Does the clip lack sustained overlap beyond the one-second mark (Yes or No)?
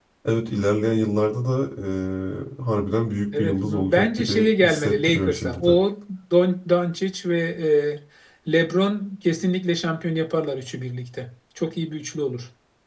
No